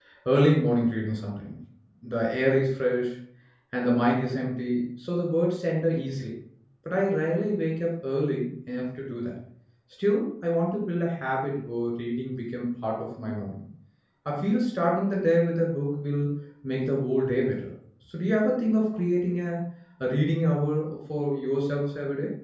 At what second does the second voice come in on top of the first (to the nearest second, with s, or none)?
none